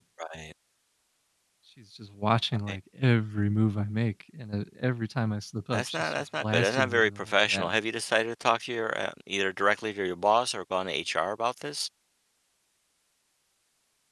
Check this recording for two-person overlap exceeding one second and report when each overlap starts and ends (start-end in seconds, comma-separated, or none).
5.7-7.7